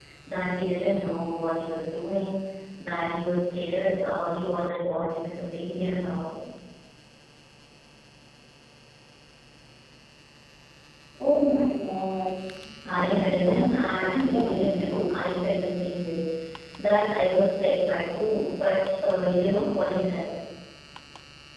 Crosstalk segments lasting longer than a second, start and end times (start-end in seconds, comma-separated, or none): 12.8-15.2